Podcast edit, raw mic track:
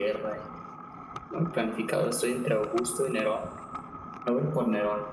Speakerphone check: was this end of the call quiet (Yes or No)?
Yes